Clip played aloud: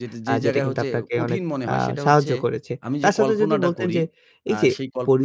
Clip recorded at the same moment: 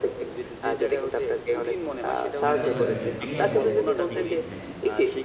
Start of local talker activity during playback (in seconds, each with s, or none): 2.5 s